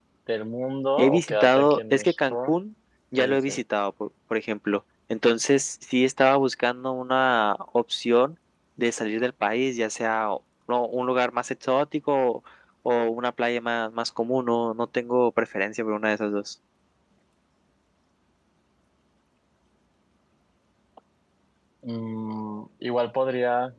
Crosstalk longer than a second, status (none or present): present